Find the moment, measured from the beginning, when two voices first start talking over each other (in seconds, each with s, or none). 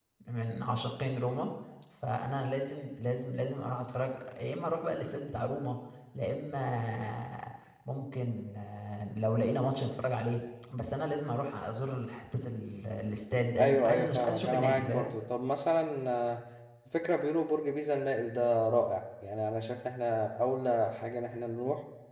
13.6 s